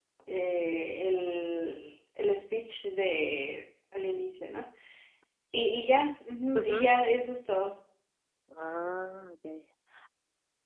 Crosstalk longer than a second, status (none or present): none